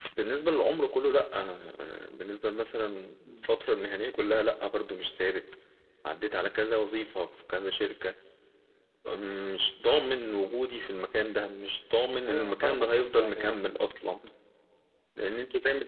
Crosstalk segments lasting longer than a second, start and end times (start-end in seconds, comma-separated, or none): 12.3-13.6